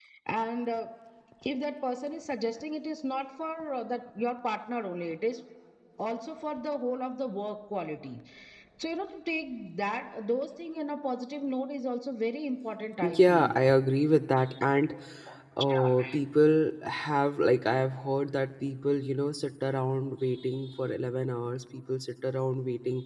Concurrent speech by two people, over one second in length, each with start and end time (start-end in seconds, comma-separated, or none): none